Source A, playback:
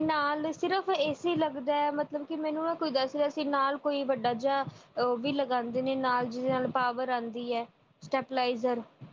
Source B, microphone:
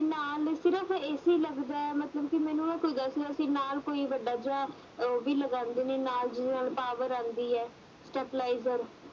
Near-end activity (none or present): none